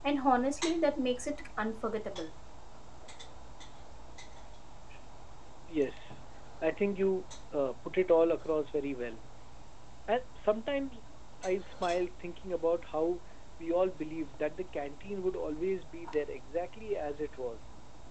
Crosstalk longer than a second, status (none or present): none